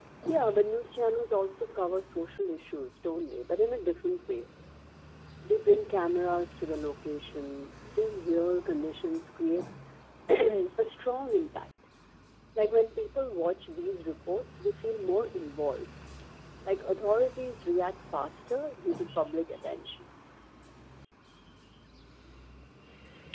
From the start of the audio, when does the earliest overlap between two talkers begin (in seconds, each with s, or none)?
none